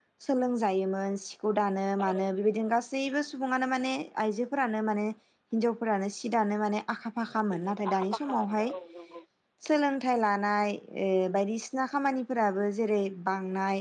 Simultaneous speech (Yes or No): Yes